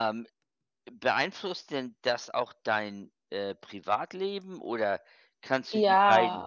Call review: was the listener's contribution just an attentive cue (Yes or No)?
Yes